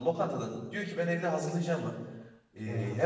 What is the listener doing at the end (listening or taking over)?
listening